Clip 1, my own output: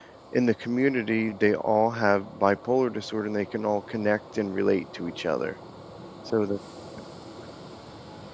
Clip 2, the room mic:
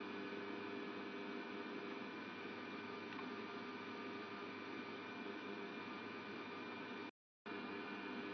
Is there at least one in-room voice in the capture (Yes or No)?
No